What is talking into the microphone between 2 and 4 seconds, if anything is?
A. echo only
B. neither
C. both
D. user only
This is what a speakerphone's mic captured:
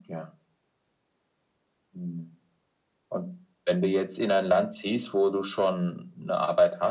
A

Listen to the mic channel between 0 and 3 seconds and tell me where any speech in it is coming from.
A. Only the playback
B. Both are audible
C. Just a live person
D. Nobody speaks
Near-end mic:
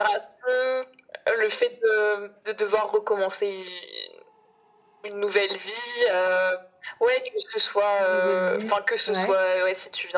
A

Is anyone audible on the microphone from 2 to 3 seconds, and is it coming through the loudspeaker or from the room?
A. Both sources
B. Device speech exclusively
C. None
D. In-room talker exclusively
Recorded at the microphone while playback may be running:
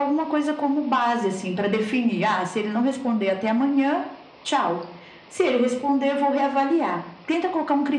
B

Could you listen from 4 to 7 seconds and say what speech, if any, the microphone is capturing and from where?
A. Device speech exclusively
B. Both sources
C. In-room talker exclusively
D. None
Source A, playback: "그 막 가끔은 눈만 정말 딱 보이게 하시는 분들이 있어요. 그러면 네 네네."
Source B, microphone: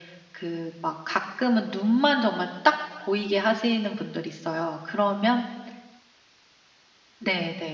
A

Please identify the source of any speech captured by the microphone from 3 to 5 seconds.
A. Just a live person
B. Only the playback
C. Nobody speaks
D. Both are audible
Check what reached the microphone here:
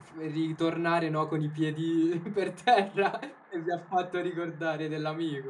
A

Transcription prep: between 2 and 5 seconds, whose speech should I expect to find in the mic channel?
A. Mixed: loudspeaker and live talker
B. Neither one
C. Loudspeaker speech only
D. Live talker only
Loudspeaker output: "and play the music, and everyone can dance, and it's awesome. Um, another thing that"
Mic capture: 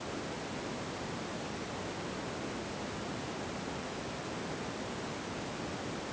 B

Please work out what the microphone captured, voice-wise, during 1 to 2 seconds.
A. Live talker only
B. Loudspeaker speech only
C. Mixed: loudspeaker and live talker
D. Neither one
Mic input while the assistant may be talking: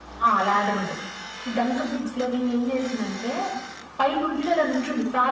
B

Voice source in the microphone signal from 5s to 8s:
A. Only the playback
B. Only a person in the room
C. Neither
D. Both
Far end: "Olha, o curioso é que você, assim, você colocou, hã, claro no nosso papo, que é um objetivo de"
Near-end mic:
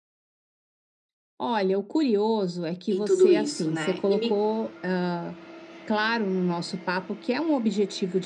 A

